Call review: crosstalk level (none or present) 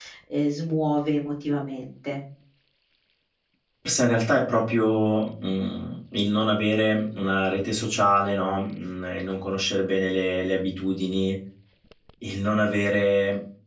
none